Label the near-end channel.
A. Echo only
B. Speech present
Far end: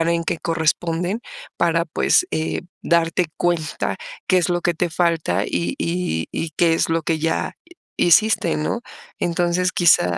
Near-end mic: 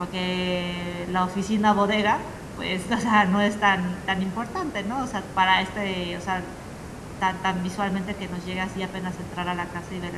B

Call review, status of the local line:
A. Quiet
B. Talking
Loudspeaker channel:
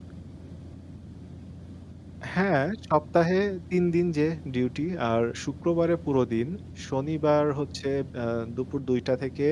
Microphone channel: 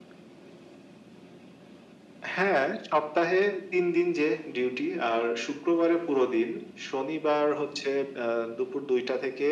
A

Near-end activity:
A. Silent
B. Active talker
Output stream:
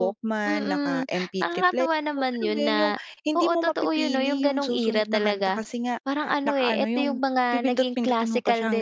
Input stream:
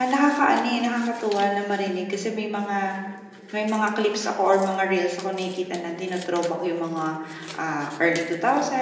B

